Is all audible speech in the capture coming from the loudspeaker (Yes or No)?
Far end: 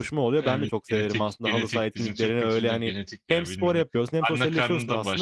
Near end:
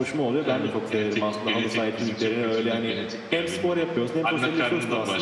Yes